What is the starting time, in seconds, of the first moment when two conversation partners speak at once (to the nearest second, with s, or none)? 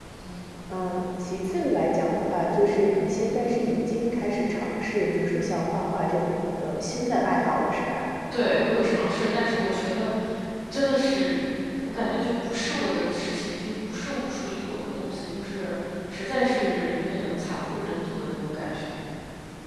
none